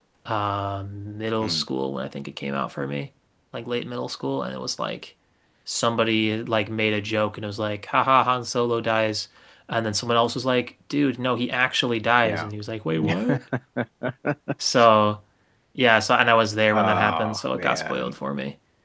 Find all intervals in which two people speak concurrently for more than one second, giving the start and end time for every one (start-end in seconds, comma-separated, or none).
16.7-18.1